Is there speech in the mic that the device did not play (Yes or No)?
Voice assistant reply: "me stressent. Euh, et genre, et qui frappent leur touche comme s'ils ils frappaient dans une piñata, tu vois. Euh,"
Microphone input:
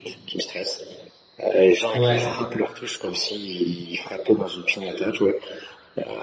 Yes